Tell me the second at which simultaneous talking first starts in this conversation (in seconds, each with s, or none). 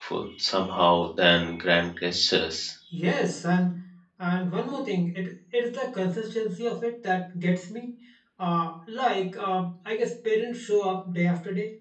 none